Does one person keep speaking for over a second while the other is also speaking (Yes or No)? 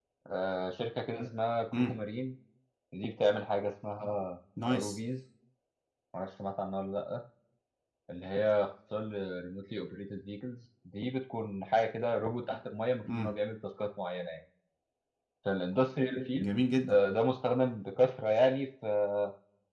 No